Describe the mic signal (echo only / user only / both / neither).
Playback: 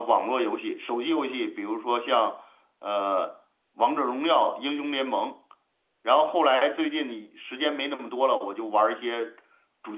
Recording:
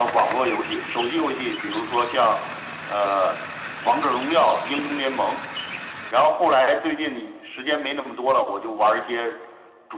echo only